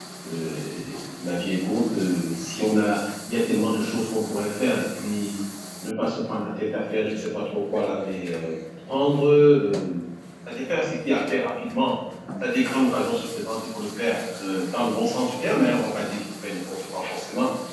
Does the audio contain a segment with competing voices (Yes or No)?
No